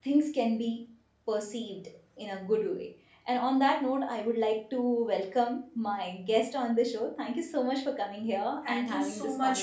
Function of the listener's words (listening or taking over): taking over